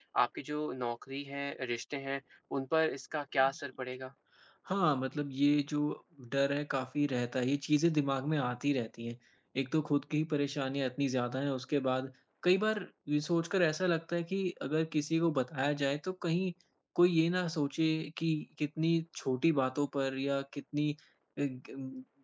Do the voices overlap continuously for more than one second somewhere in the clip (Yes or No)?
No